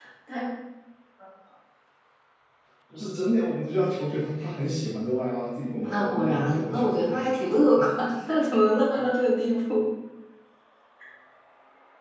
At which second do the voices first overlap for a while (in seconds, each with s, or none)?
5.8 s